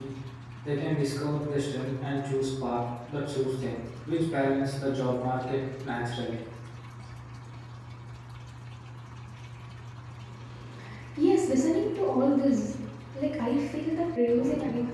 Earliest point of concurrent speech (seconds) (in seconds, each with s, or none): none